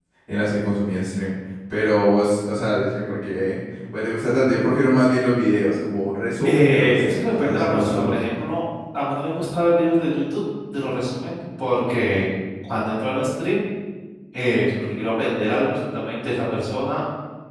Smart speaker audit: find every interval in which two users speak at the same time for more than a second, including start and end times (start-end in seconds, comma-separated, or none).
6.4-8.2